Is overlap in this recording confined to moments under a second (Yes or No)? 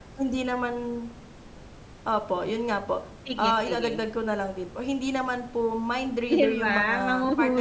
No